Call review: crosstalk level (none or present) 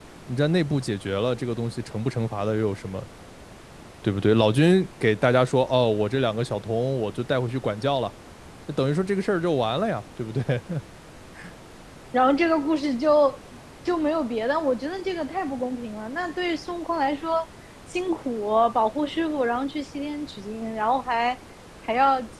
none